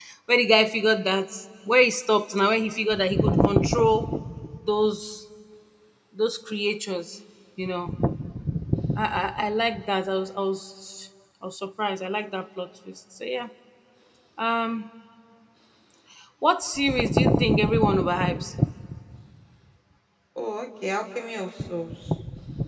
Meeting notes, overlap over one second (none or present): none